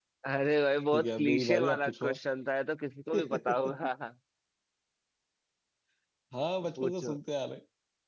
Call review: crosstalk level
present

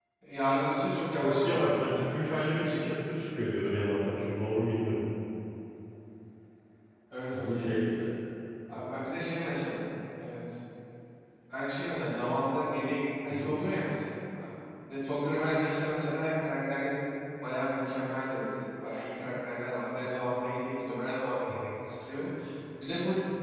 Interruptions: present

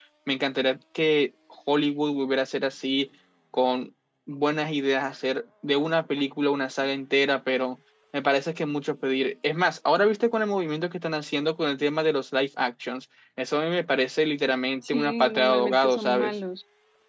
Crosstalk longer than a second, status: present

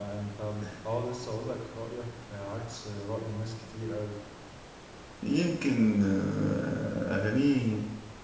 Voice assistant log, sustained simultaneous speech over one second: none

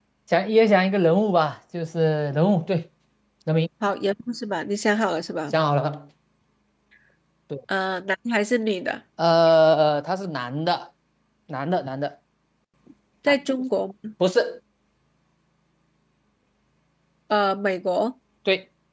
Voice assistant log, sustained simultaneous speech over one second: none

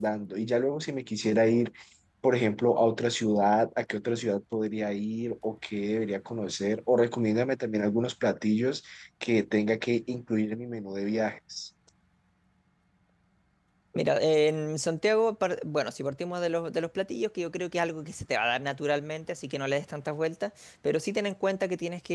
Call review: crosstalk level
none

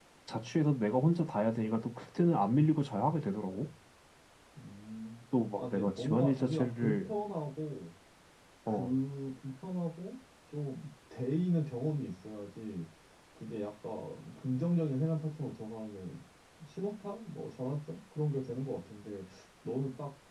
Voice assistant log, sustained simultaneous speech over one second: present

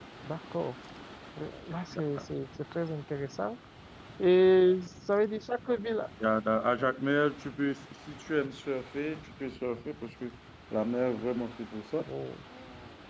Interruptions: none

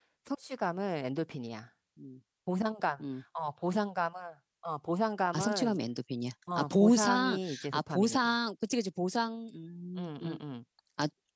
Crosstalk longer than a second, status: present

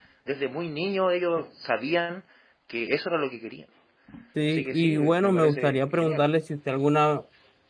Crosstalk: present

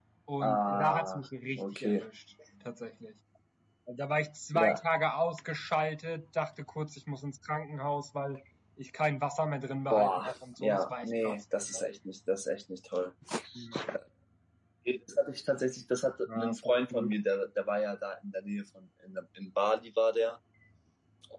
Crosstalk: present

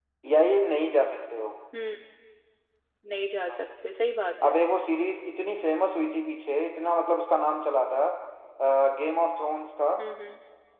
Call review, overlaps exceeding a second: none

